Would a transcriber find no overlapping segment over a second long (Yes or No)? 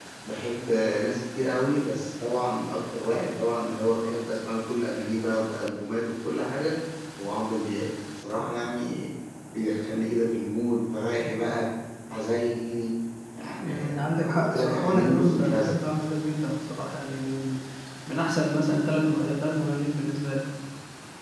No